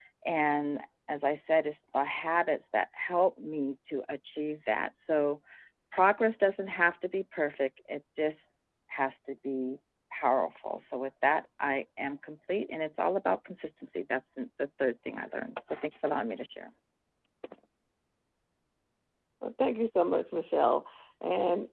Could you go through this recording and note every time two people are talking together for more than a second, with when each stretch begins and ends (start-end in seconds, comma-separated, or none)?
none